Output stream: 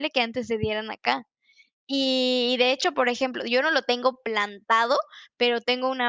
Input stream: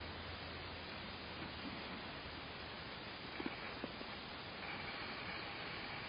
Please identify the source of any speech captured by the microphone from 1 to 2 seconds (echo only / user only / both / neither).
neither